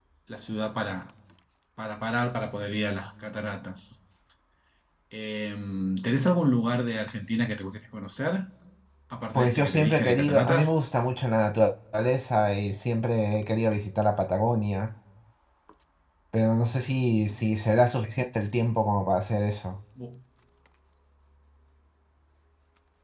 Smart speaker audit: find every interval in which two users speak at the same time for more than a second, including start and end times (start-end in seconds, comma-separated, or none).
9.4-10.7